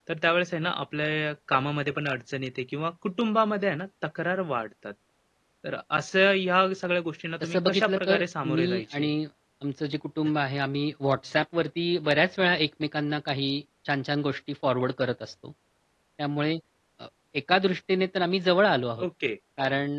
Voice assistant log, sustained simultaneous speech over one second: present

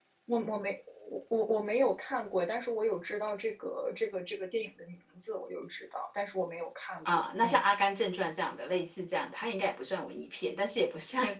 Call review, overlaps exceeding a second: none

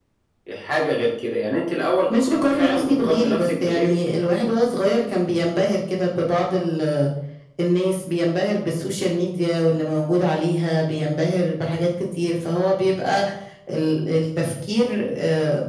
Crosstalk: present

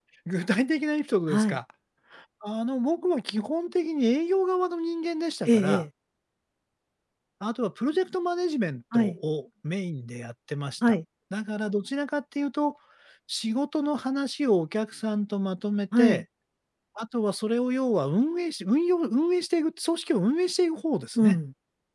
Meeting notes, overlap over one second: none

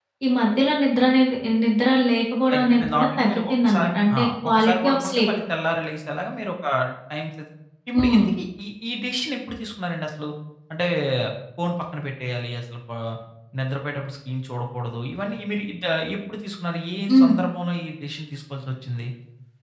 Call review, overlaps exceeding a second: present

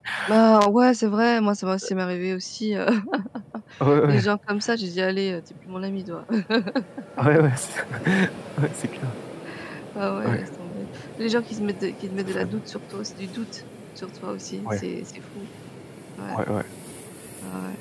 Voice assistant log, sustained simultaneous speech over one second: none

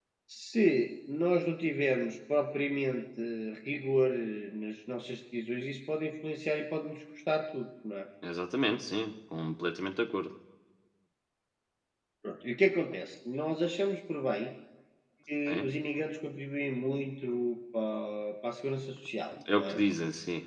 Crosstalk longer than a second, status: none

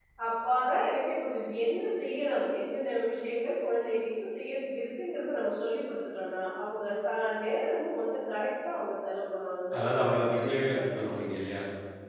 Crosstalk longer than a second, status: present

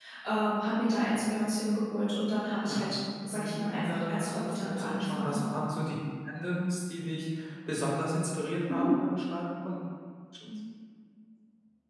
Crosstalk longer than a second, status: present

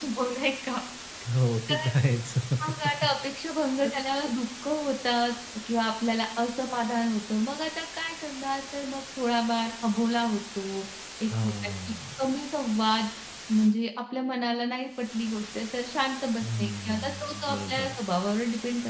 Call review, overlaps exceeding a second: present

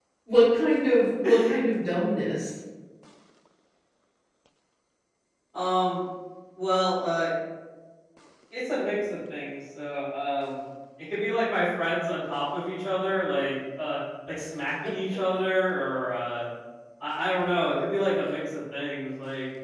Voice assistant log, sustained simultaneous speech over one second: none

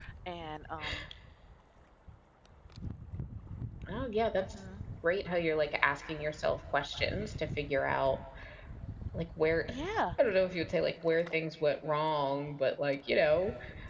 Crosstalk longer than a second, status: none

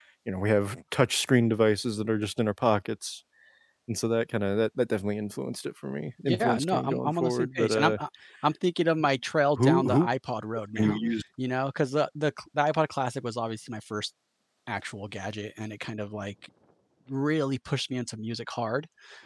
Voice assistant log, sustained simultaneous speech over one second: present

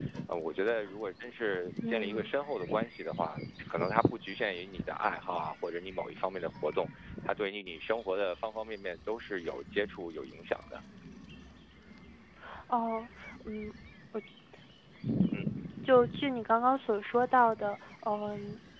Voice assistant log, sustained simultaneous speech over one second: none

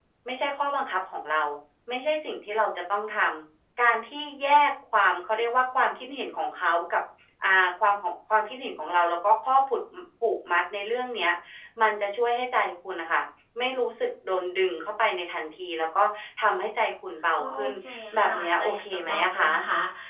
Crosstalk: present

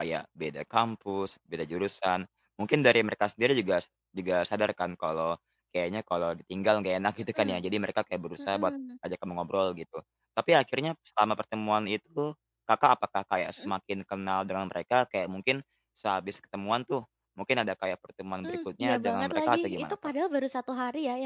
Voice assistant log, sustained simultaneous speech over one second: present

